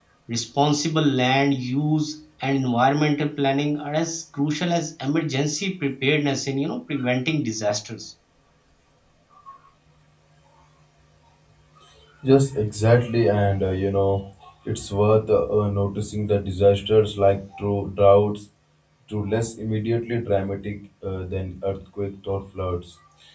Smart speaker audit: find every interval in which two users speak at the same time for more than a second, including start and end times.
none

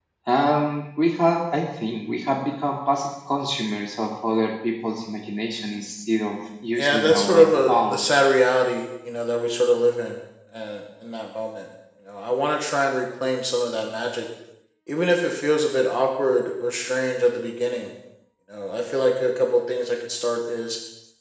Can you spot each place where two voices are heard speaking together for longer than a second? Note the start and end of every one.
6.8-8.0

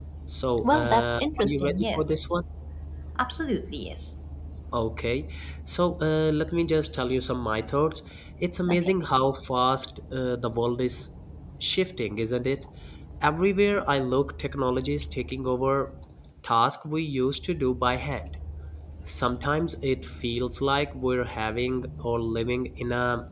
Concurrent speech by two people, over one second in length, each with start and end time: 0.6-2.2

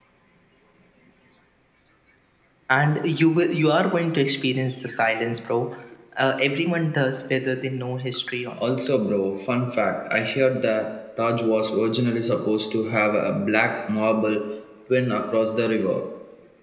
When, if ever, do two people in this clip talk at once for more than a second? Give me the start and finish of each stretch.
none

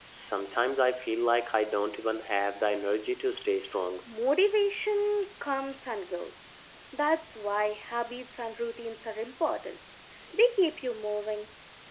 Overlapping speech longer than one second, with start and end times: none

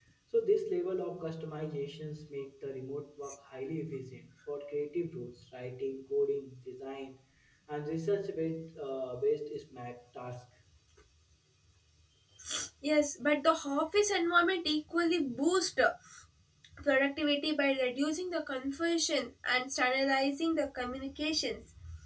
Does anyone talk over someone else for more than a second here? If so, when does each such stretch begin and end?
none

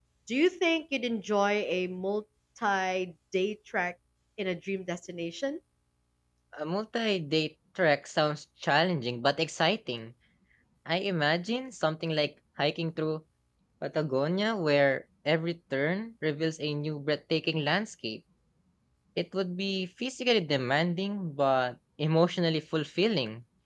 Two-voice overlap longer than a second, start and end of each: none

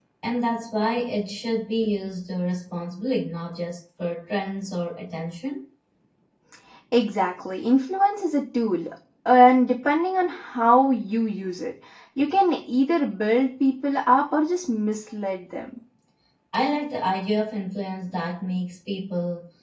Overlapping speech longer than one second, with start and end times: none

